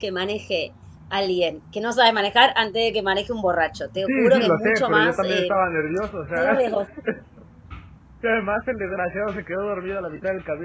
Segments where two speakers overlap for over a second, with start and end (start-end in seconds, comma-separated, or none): 4.0-5.6